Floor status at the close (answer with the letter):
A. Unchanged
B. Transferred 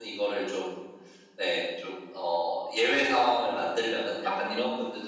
A